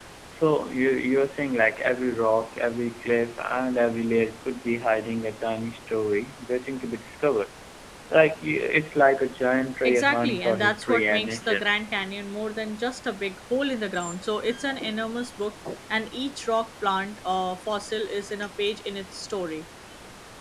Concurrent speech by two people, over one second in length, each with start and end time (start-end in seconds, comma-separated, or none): 9.8-11.6